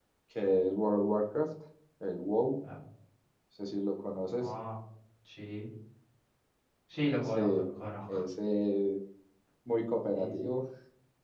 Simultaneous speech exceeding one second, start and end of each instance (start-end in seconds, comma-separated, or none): none